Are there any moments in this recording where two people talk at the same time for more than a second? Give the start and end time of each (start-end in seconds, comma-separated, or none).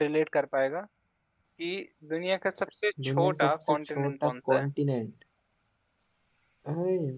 3.1-4.7